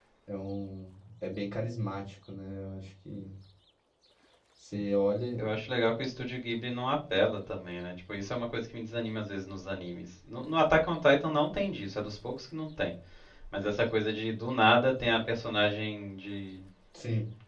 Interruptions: none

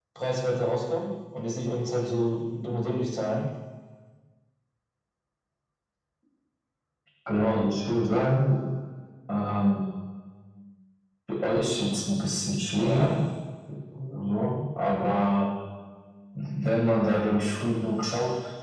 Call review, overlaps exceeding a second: none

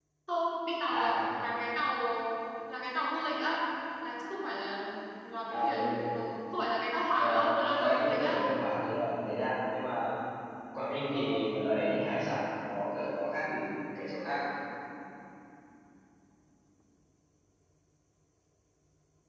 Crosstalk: present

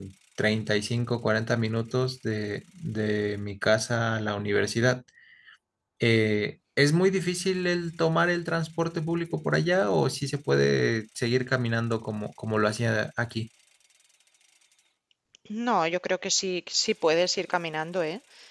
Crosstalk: none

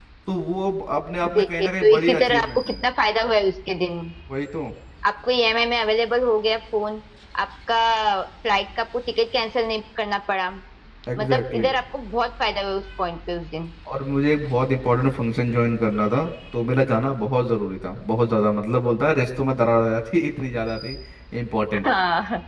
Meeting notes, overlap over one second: present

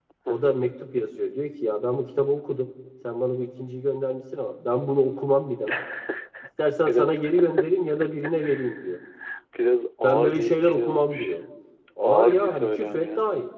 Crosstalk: present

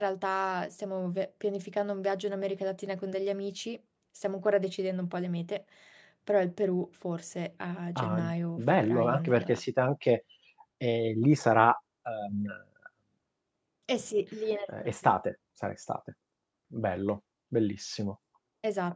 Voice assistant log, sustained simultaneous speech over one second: present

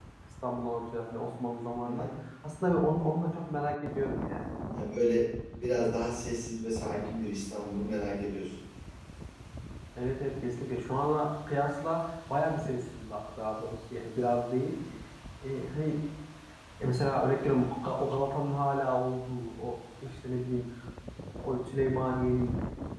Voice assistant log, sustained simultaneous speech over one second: none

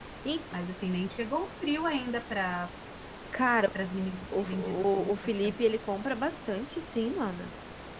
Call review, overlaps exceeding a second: present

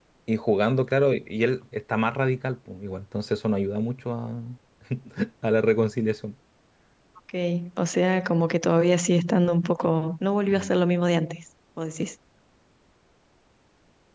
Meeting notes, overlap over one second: none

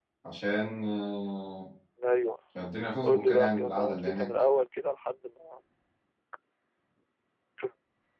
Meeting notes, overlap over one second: present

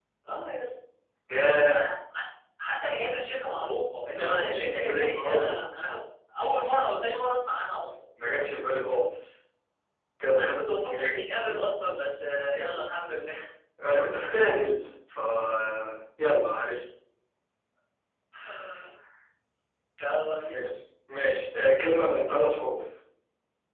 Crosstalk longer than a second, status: present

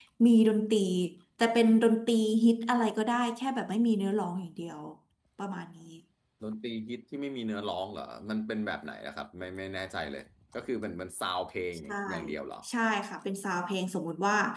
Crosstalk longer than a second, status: none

